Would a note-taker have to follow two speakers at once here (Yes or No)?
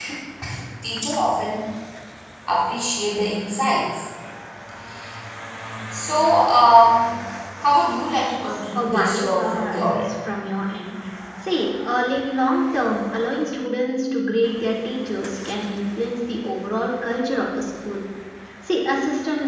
Yes